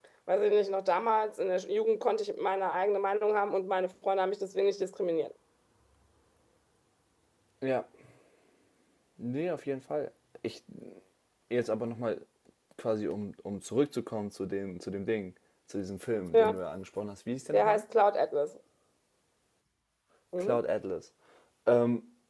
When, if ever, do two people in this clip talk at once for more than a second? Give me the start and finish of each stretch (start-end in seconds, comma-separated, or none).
none